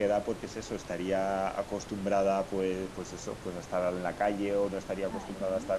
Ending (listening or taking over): listening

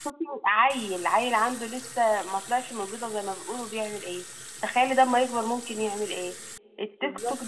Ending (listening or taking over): listening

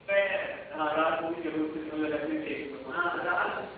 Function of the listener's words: taking over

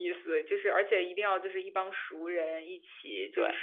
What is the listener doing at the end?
listening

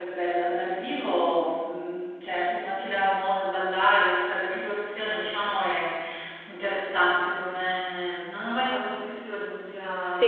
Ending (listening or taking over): taking over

